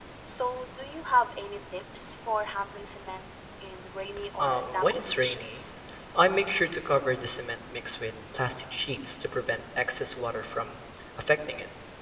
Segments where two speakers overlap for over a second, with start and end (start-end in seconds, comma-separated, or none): 4.4-5.6